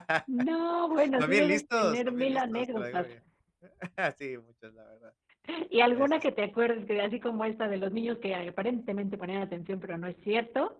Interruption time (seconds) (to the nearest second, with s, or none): 1 s